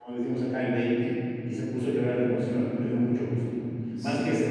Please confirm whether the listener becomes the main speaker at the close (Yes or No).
No